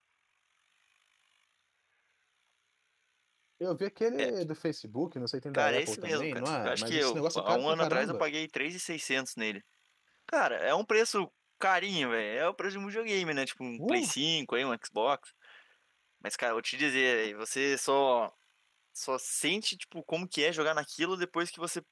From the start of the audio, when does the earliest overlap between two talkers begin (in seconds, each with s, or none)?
5.5 s